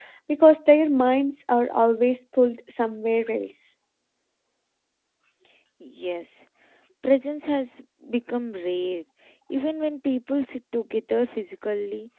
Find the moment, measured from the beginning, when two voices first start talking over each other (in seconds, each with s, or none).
none